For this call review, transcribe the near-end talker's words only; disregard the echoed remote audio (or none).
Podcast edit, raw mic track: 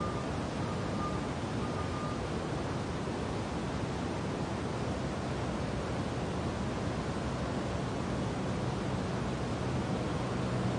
none